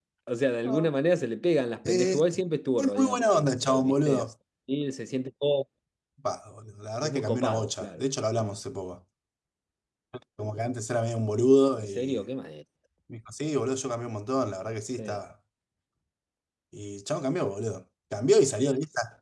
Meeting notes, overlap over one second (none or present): present